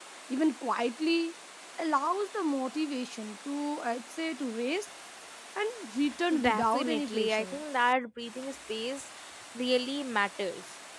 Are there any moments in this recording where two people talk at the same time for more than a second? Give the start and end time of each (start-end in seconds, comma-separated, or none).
6.4-7.6